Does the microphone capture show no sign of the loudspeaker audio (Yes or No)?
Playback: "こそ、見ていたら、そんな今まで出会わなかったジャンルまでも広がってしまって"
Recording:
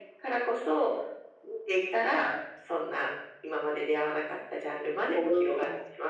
No